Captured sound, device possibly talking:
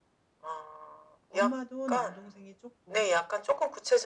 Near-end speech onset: 1 s

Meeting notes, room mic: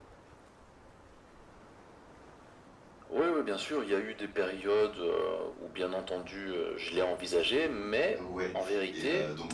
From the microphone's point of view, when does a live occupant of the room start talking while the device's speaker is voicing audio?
8 s

